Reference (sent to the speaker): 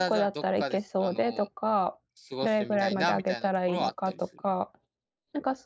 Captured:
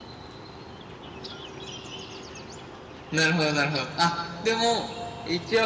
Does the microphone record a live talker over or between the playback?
Yes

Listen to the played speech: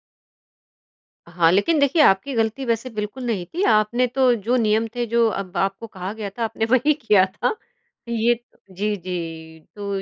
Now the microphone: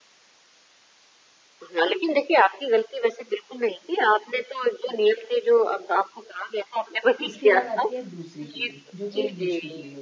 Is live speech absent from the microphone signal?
No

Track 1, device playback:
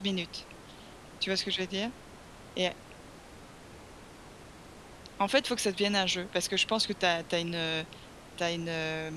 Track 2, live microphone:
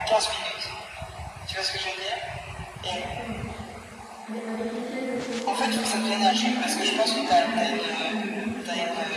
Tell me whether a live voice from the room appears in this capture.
Yes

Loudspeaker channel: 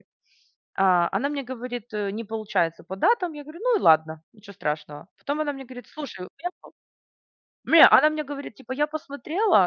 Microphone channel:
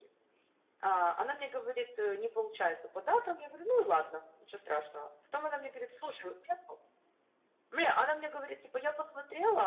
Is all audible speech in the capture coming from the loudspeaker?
Yes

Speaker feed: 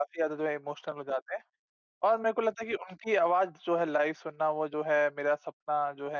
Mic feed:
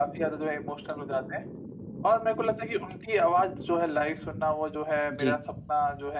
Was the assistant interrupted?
Yes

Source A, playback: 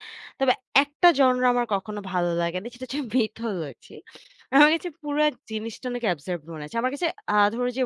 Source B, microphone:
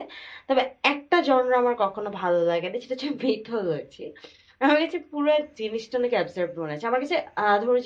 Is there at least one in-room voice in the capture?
No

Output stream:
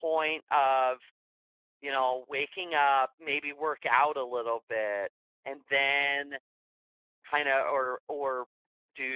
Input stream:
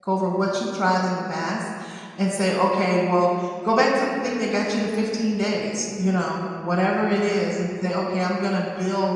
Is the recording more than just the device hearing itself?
Yes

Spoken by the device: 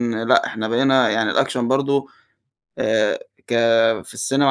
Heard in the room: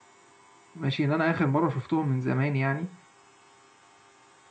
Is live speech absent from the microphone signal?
No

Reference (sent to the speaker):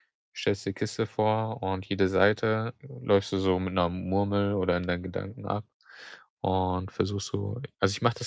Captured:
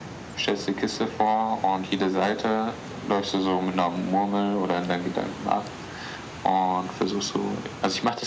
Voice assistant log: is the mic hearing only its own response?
Yes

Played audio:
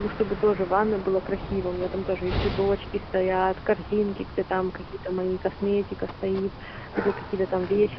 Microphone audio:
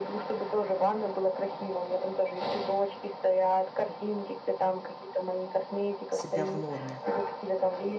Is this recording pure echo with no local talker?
No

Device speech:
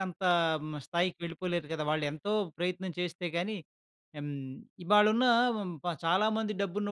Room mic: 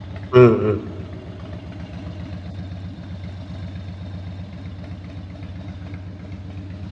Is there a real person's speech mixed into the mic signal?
Yes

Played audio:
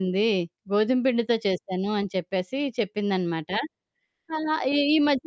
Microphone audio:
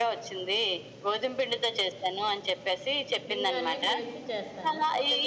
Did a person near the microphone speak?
Yes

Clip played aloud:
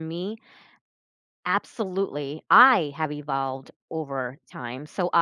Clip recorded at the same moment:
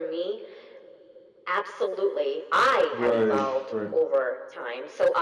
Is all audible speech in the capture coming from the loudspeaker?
No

